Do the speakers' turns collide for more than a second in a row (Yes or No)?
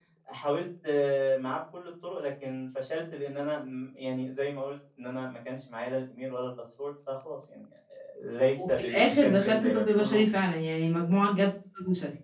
Yes